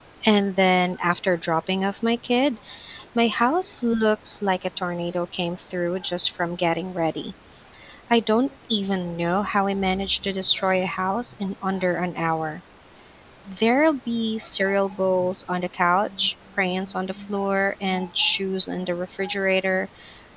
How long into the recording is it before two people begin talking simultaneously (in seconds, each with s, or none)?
none